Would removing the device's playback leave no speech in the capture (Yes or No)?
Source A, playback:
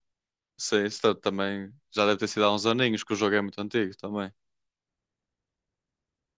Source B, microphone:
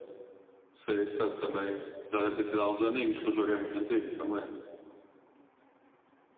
Yes